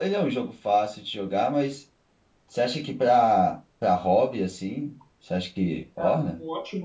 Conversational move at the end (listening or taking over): taking over